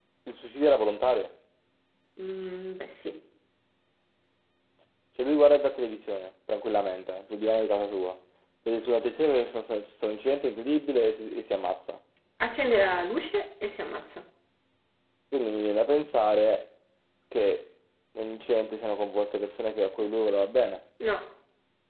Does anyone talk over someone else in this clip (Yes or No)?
No